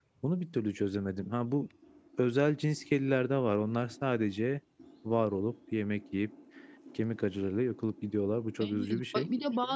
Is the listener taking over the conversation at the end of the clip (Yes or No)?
Yes